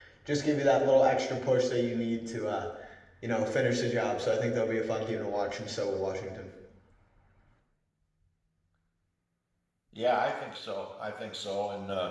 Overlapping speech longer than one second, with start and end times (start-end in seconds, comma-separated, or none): none